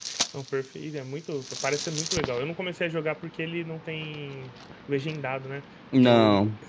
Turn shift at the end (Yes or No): No